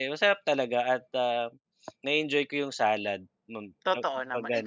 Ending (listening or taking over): taking over